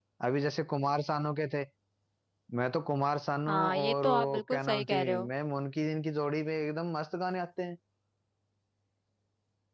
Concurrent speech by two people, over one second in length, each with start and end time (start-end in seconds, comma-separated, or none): 3.5-5.3